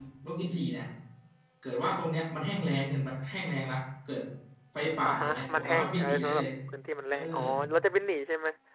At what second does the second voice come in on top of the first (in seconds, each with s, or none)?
5.0 s